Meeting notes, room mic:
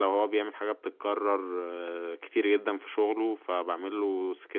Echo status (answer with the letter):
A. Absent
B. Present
A